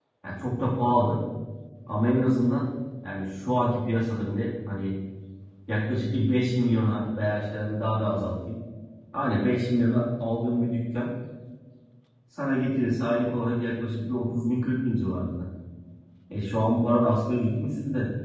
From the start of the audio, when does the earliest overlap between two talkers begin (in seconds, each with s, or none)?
none